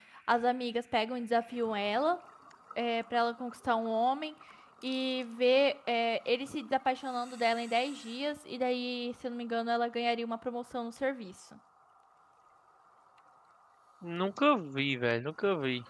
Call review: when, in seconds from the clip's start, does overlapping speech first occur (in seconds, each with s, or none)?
none